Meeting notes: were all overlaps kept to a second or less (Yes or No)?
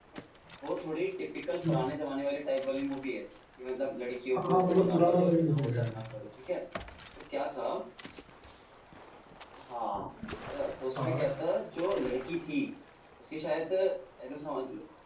No